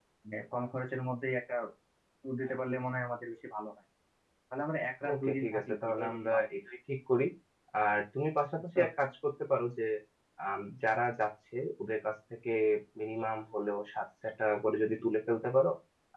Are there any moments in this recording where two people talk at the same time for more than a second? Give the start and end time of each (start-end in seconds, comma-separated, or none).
5.1-6.4